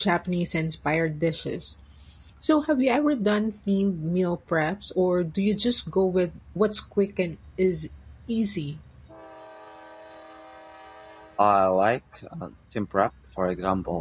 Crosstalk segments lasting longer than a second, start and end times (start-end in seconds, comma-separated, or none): none